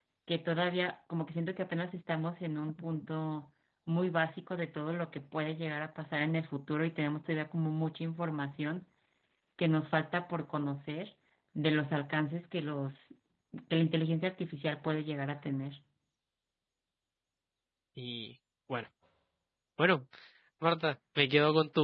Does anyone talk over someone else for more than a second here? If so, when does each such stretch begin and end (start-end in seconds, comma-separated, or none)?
none